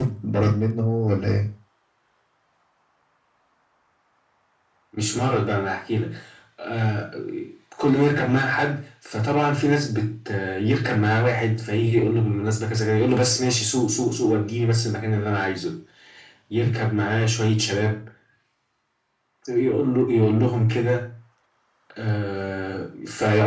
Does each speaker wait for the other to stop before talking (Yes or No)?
Yes